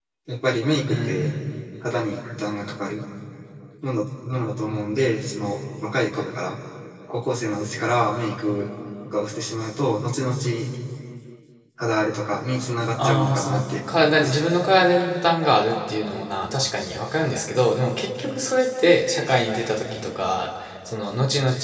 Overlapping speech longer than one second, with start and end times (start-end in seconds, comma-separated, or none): 13.0-14.4